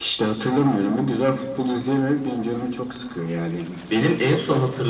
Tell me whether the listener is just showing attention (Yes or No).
No